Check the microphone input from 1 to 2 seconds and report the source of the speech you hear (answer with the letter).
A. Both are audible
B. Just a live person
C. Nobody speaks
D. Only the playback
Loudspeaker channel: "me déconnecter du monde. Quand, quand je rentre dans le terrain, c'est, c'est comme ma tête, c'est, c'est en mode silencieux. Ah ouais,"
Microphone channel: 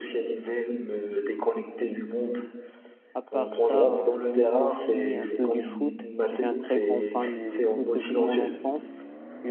D